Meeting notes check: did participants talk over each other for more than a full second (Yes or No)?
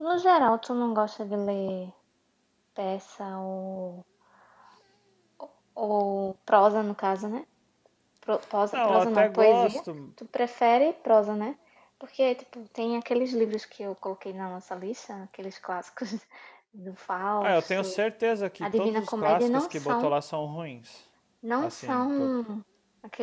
Yes